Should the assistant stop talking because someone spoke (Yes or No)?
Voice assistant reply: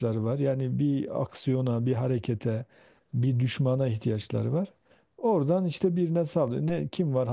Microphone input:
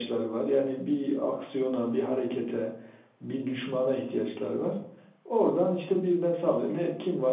No